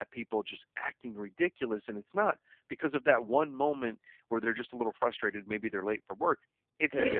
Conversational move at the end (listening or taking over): listening